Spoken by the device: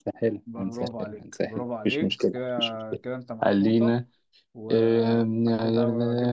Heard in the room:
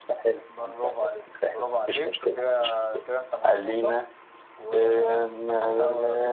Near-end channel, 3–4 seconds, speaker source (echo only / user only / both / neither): echo only